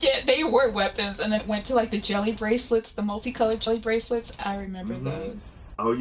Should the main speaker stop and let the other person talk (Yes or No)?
Yes